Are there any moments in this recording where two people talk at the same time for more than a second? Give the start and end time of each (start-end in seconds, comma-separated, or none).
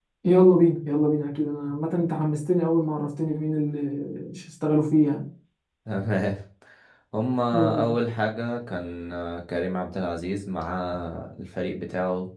none